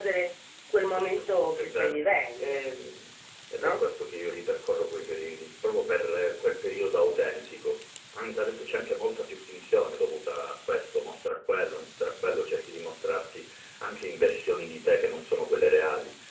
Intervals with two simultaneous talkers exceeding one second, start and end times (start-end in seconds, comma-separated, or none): 0.8-2.6